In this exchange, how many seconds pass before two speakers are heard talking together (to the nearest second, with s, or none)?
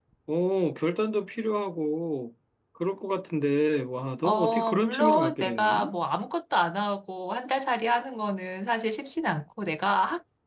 4 s